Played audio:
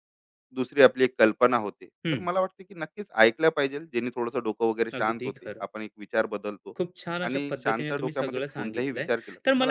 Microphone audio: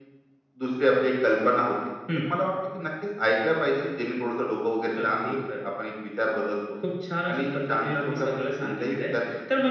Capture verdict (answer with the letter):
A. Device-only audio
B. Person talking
A